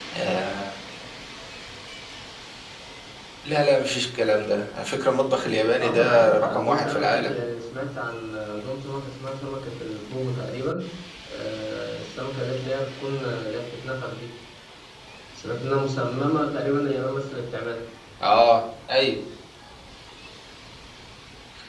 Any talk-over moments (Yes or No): Yes